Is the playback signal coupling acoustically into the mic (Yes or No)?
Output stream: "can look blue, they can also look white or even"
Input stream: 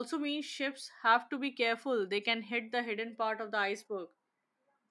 No